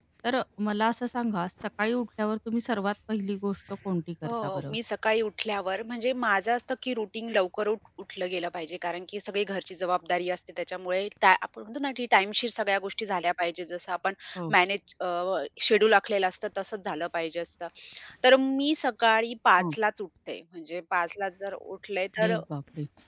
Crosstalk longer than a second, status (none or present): none